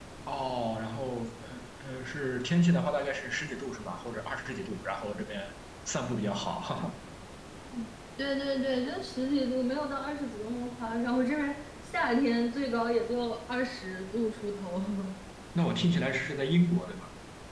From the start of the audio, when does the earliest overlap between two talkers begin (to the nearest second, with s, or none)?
none